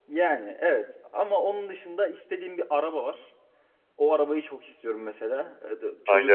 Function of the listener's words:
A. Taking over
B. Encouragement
B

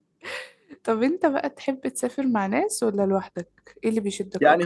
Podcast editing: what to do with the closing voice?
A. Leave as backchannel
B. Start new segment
B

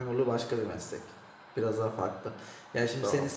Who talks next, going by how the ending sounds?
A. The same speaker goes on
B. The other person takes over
A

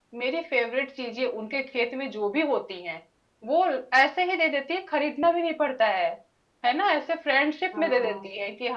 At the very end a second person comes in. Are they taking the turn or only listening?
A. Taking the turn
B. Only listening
B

